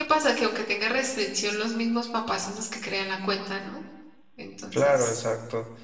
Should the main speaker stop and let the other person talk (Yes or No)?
Yes